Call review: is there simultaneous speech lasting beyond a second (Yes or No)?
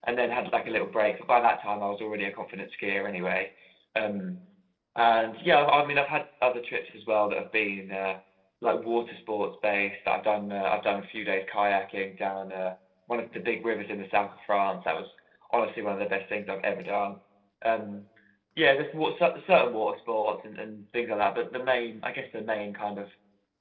No